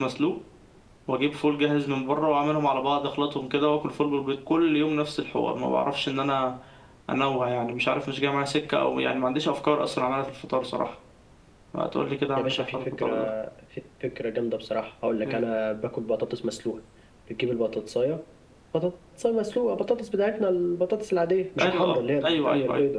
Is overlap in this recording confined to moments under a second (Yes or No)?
No